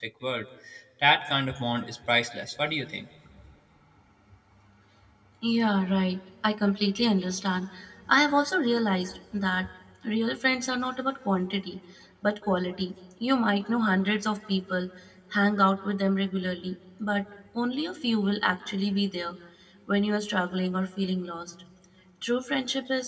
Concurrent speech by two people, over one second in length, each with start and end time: none

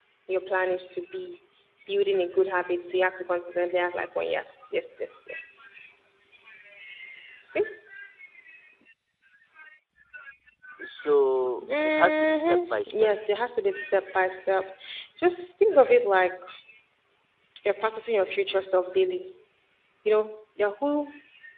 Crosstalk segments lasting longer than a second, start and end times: 11.5-13.1

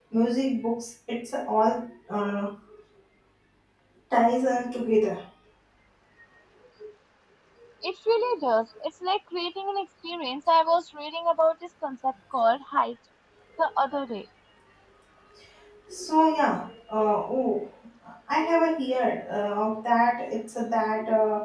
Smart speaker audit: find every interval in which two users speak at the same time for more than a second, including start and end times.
none

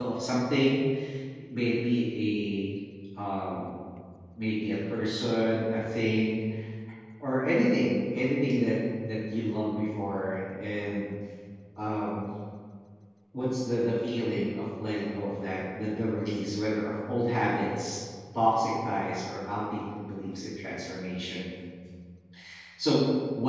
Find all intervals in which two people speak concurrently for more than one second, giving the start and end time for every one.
none

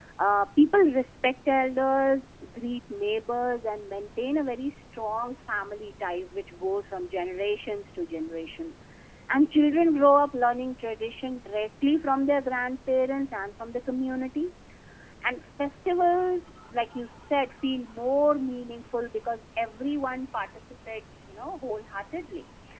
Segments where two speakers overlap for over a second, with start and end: none

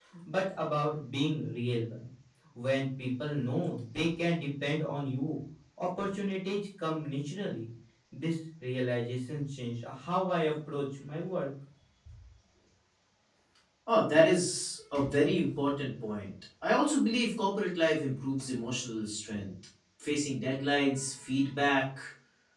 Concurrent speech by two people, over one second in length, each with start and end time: none

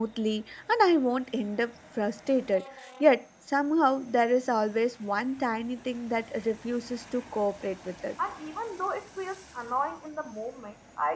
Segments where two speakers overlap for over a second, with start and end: none

